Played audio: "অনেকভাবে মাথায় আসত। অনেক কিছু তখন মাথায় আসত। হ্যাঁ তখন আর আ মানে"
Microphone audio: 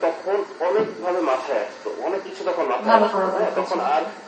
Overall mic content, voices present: both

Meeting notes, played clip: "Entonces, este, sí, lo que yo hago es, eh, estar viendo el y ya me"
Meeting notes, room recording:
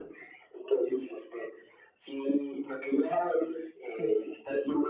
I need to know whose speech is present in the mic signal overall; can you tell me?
both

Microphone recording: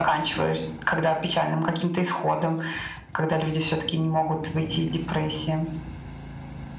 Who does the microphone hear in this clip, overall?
echo only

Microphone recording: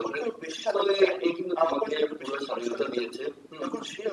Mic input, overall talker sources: echo only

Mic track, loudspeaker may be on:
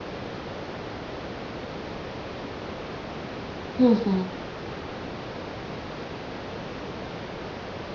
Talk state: user only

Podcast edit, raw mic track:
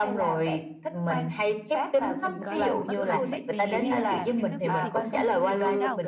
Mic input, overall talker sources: both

